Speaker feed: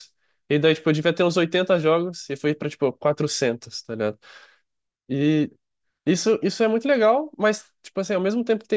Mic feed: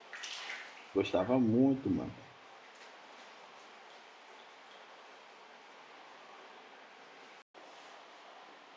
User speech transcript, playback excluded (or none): Gostava muito, mano.